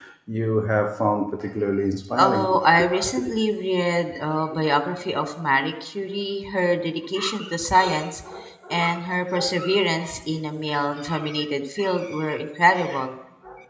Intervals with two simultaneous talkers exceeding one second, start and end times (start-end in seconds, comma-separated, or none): none